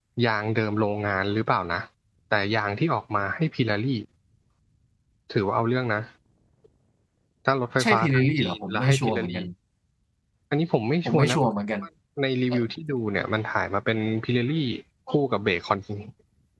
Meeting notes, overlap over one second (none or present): present